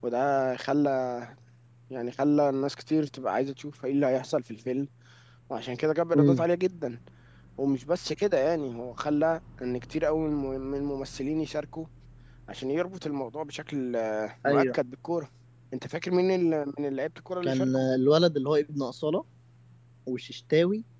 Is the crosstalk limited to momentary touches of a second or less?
Yes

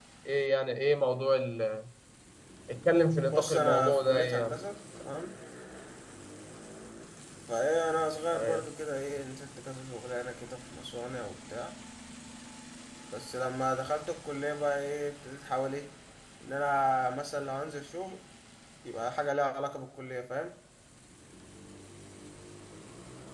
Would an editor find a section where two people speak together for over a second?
Yes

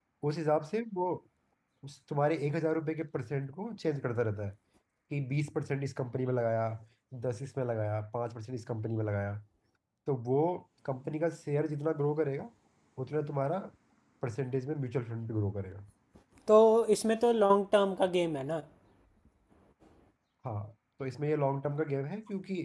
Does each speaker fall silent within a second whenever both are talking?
Yes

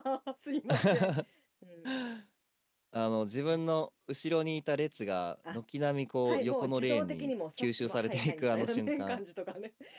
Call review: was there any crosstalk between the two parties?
Yes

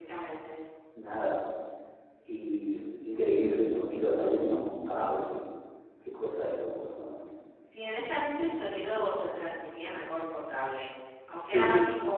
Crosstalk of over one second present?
No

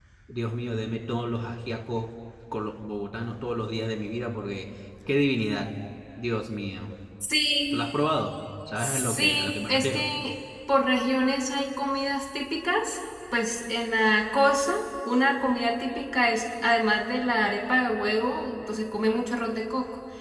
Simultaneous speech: Yes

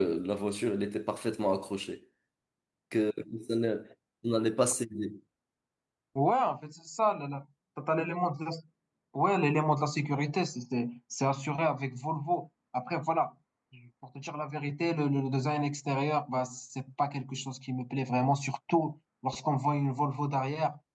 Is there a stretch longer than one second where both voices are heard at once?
No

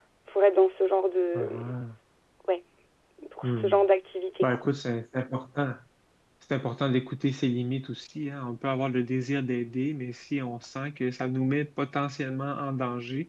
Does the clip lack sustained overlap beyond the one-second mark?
Yes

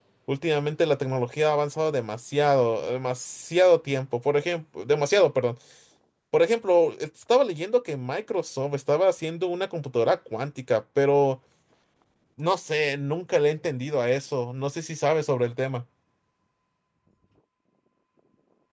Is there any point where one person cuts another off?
No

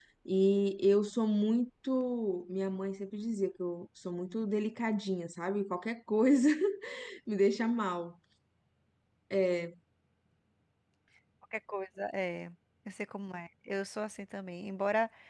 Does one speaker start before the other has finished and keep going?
No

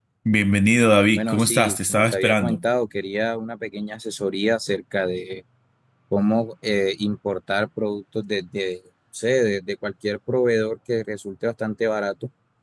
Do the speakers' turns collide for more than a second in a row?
Yes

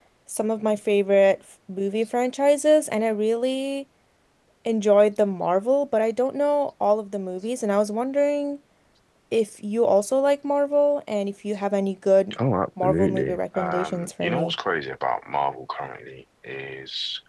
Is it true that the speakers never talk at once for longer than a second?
No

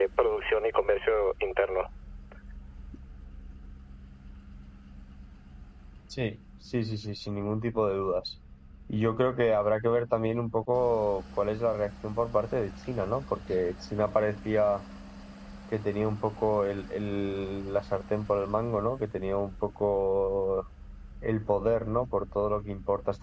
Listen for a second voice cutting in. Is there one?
No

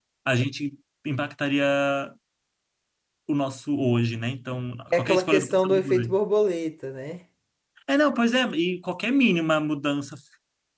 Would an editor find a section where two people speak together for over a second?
Yes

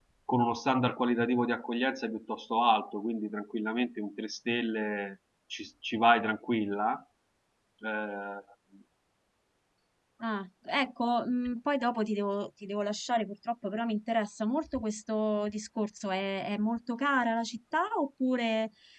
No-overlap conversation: Yes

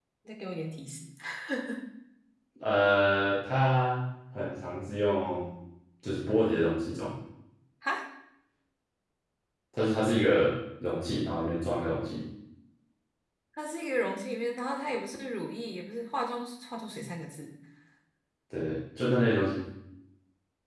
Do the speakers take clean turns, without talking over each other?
Yes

